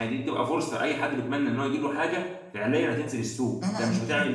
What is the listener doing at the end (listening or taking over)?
taking over